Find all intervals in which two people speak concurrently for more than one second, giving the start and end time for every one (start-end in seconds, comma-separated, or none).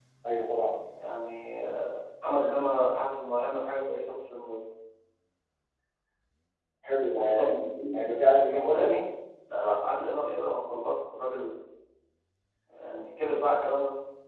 none